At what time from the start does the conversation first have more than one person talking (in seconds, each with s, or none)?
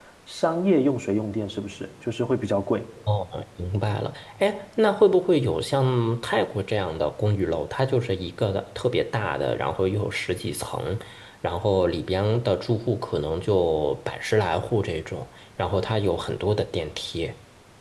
none